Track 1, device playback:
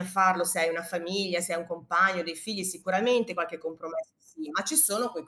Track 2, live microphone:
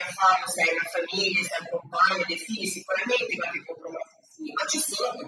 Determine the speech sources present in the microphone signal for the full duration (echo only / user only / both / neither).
echo only